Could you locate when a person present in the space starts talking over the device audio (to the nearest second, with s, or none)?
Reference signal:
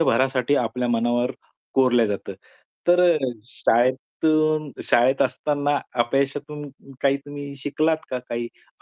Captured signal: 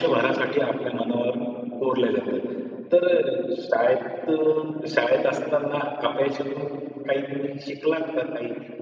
none